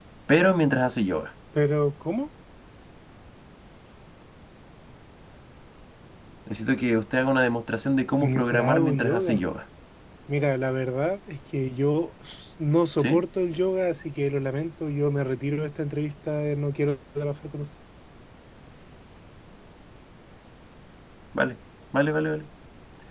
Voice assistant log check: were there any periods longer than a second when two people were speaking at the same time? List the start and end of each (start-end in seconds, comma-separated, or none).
8.2-9.4